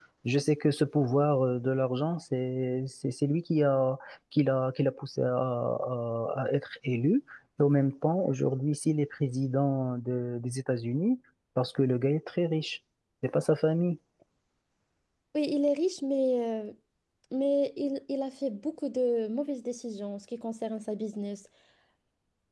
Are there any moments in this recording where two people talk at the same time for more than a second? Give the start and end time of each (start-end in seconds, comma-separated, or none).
none